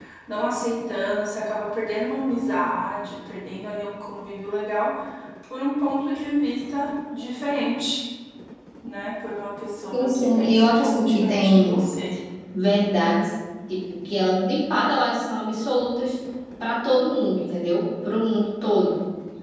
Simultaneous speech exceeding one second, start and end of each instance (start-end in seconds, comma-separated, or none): 9.9-11.7